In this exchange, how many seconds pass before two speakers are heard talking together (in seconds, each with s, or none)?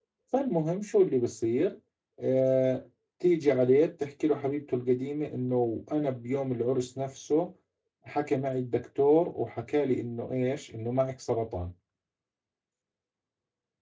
none